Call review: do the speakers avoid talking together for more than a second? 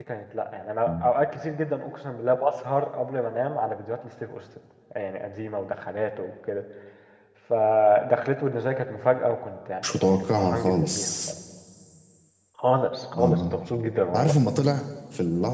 No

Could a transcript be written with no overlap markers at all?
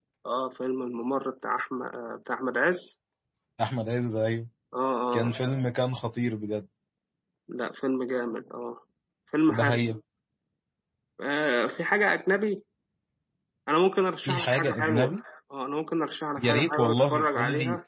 No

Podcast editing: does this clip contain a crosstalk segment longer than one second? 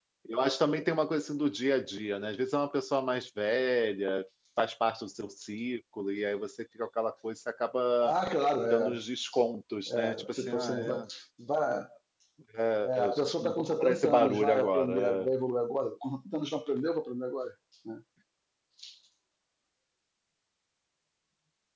Yes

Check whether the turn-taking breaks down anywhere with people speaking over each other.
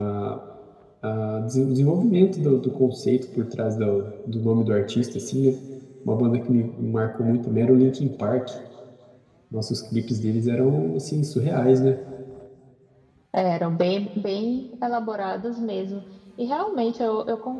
No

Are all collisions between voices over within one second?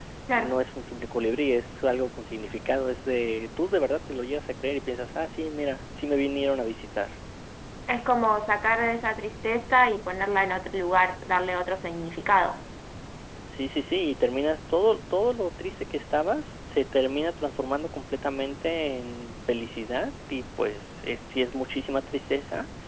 Yes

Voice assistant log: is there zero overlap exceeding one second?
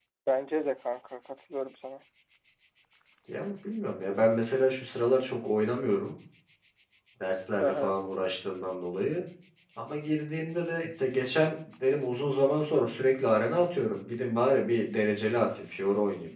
Yes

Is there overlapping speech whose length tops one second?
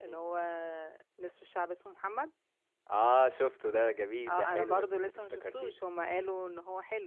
Yes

